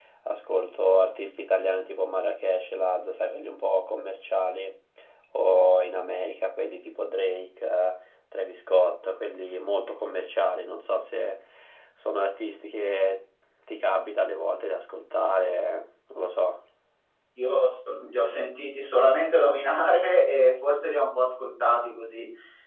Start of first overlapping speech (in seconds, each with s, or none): none